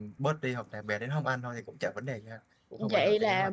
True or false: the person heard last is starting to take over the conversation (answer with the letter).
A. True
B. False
A